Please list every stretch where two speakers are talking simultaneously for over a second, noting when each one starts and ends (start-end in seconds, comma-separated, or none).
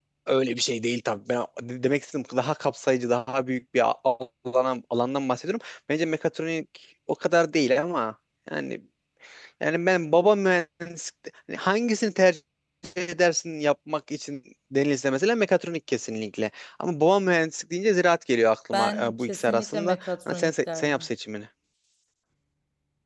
18.7-21.1